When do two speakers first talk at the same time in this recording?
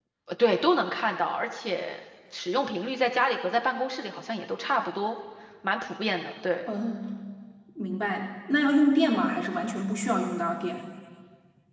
none

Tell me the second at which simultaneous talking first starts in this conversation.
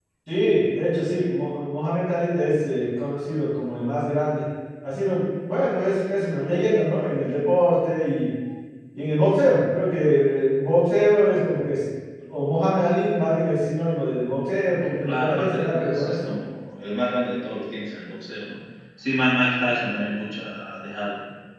15 s

